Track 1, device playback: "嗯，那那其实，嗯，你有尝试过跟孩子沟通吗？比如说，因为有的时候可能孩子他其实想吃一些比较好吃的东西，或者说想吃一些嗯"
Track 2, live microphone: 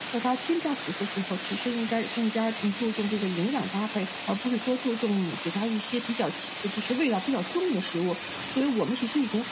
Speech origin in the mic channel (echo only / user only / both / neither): user only